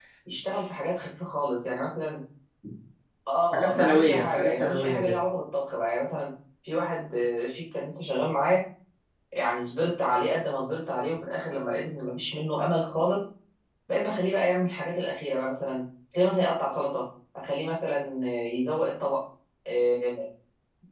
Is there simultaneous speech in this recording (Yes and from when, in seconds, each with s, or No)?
Yes, from 3.5 s